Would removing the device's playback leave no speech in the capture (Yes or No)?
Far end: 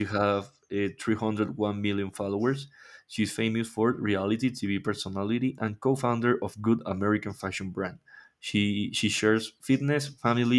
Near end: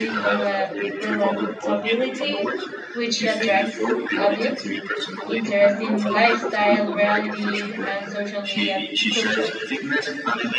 No